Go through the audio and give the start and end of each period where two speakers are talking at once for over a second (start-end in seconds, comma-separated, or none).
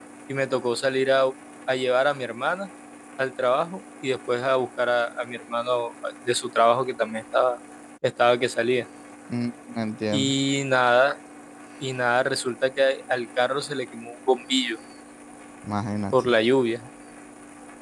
none